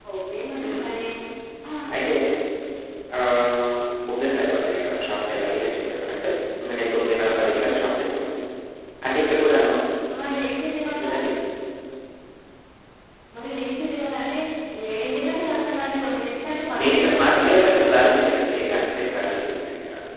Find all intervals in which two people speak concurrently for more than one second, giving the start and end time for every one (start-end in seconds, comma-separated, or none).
16.8-18.0